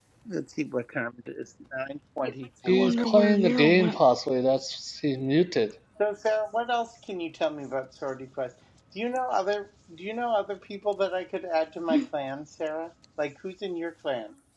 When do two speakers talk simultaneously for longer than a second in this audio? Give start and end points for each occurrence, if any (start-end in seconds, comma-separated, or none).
2.7-4.0